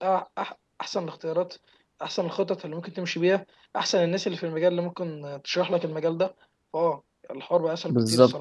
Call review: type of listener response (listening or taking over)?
taking over